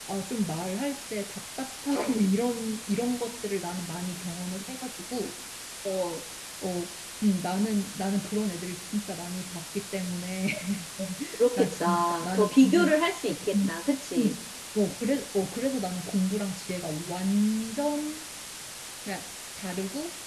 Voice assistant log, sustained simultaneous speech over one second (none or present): present